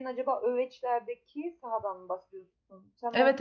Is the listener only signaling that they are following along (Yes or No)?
No